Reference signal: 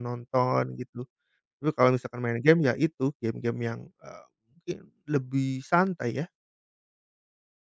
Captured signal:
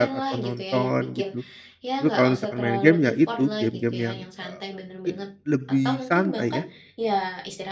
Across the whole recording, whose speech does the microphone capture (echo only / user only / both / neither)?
both